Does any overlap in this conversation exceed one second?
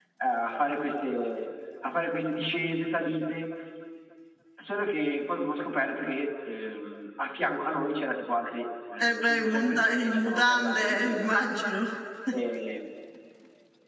Yes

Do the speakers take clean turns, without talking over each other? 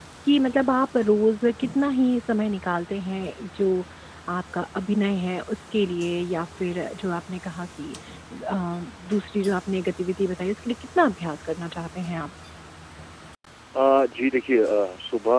Yes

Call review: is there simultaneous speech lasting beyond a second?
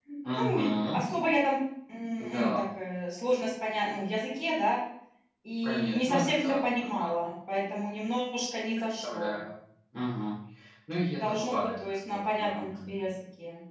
Yes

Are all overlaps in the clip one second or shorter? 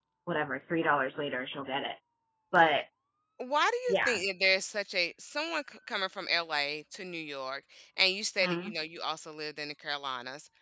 Yes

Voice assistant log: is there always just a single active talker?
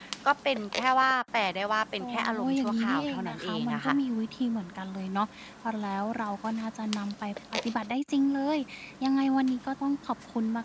No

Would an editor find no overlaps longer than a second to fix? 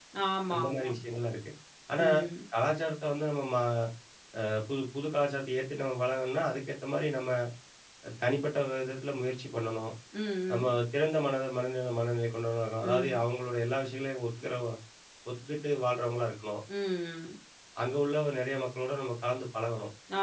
Yes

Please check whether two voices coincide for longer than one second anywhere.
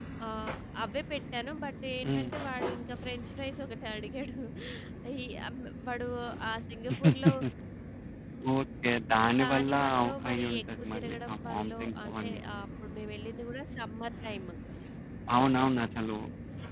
Yes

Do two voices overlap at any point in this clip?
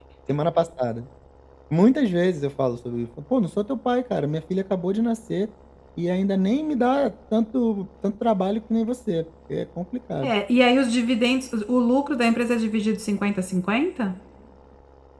No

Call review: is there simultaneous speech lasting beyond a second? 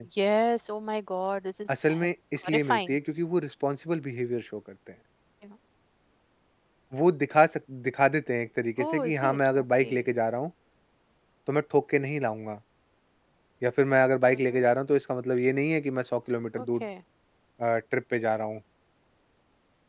Yes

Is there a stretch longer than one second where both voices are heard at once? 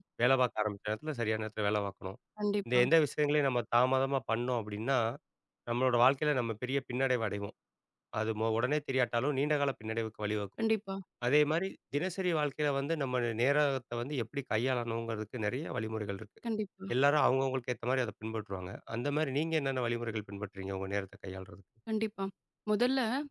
No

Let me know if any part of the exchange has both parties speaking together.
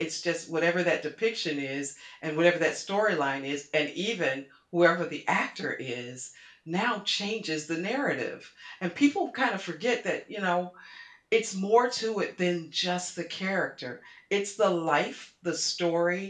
No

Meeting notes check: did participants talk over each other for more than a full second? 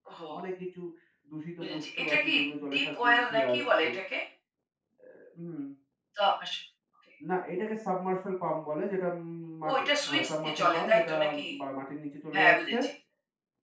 Yes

